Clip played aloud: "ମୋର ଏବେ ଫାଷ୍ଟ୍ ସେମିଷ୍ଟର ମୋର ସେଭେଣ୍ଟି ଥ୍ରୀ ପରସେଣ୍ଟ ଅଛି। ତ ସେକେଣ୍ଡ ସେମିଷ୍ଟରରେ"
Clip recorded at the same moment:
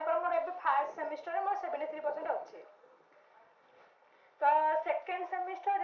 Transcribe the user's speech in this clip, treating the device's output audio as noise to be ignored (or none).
none